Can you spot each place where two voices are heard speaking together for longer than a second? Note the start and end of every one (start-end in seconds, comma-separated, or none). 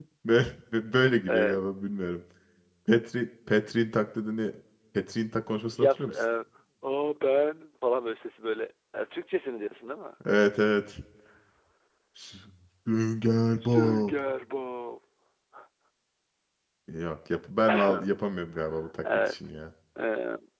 none